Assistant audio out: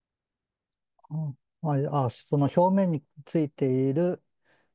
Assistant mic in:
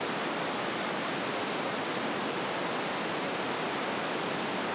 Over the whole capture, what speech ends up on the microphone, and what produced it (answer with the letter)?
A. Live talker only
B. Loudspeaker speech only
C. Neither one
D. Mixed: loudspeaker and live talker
C